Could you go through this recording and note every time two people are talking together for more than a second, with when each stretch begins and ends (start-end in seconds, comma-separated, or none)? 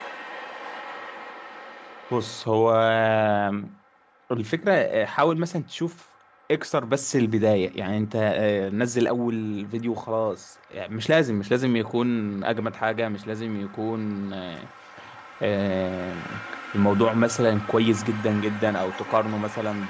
none